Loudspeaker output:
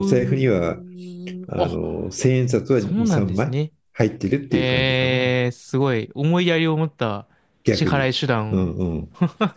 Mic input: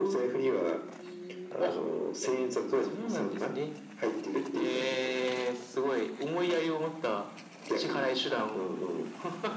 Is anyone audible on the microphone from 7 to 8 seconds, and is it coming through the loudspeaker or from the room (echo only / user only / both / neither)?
echo only